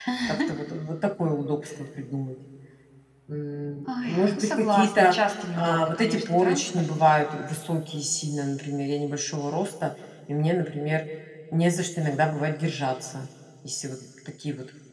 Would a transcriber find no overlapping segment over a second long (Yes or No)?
No